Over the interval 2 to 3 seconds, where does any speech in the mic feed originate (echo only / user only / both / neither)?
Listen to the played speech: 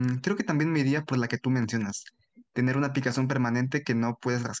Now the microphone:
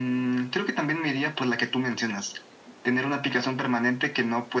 echo only